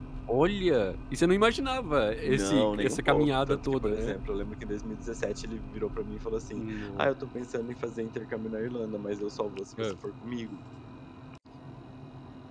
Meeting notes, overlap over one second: present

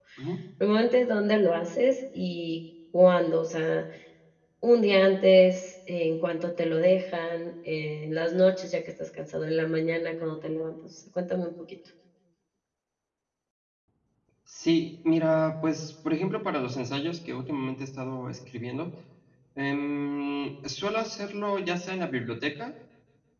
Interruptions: none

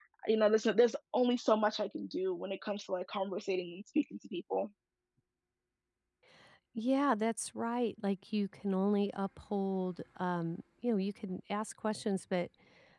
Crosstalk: none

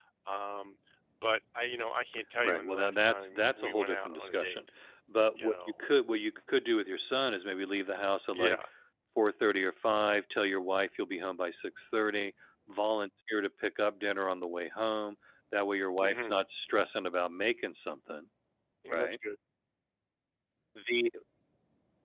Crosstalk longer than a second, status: present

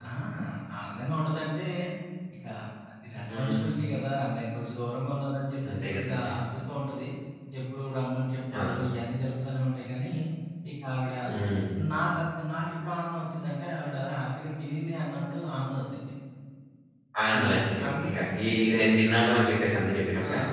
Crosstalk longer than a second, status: present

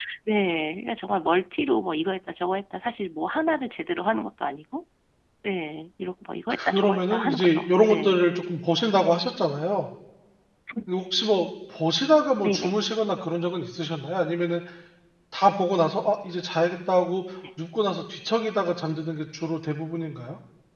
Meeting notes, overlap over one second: present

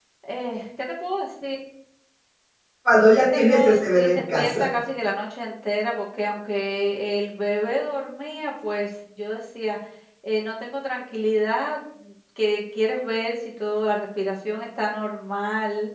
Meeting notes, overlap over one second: present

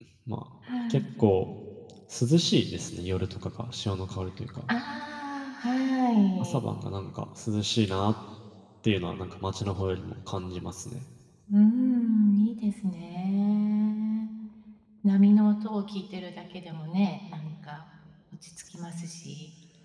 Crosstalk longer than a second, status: none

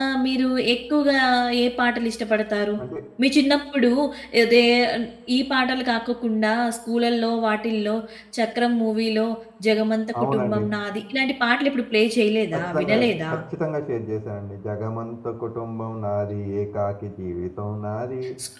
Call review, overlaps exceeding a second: none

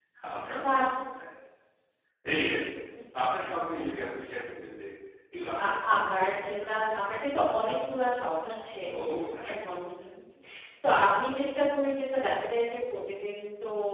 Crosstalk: present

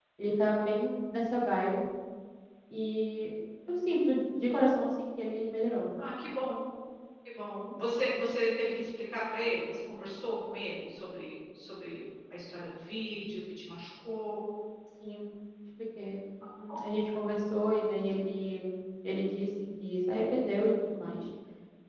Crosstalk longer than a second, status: none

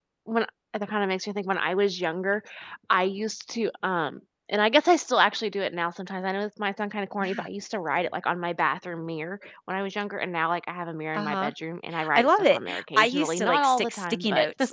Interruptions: present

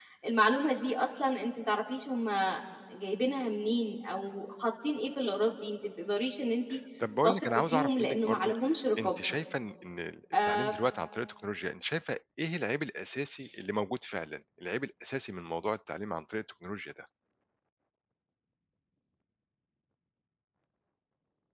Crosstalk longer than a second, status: present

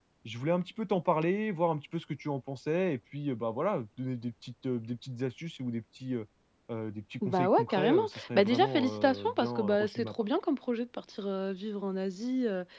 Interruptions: present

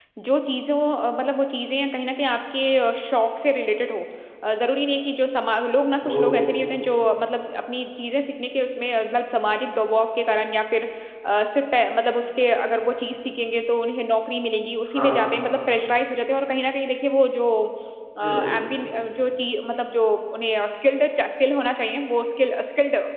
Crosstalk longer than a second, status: none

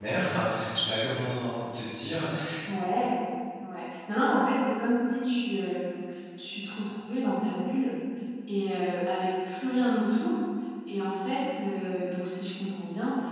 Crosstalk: none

